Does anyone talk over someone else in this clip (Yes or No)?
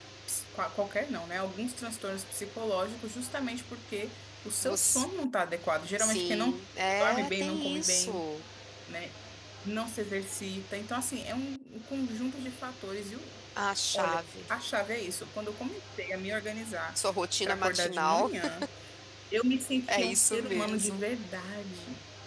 Yes